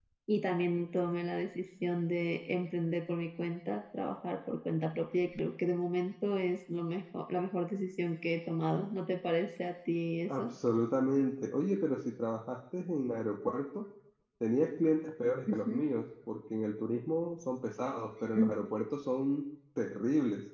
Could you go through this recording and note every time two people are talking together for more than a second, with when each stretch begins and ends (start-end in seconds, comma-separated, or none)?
none